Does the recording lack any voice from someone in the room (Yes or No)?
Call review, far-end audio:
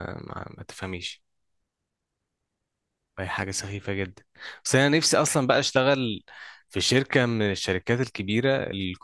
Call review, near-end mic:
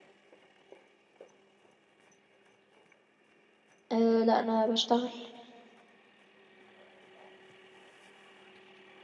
No